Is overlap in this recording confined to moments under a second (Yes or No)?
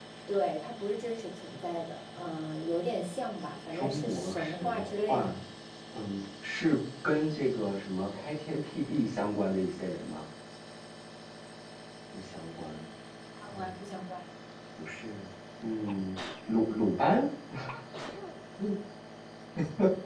No